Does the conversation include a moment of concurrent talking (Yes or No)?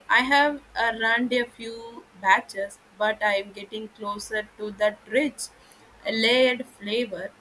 No